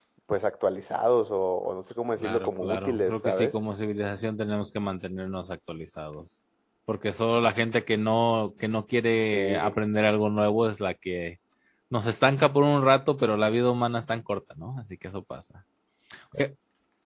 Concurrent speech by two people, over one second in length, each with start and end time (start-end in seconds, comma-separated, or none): 2.2-3.5